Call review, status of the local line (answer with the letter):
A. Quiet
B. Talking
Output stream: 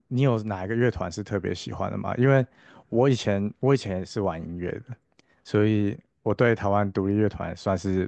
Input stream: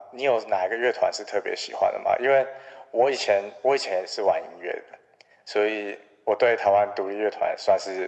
A